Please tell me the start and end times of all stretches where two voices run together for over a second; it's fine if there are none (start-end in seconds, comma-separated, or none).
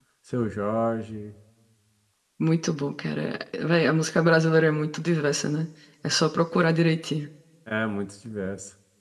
none